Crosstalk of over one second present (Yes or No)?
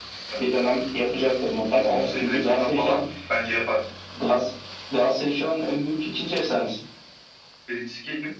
Yes